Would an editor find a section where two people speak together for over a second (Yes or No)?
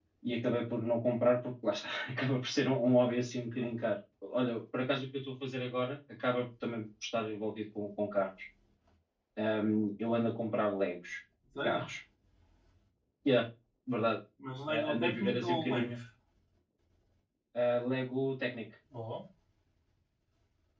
Yes